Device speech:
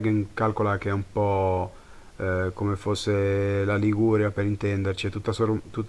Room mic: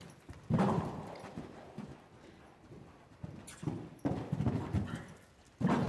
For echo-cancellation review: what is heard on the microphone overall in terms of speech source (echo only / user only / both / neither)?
neither